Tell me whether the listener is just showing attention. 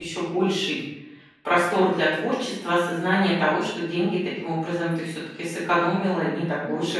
No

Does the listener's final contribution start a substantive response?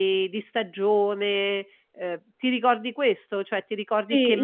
Yes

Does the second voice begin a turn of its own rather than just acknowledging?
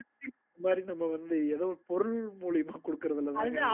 Yes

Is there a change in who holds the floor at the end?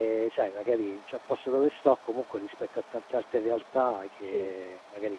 No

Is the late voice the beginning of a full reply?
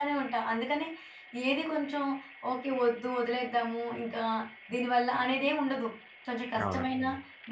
No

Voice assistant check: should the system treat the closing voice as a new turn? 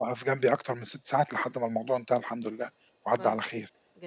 Yes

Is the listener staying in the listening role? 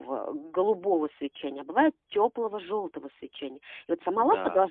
Yes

